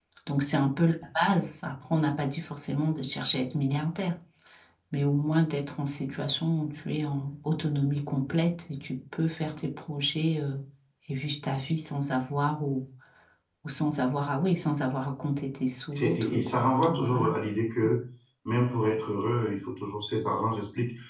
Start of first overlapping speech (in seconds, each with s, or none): 15.9 s